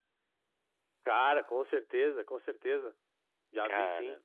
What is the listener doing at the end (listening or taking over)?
listening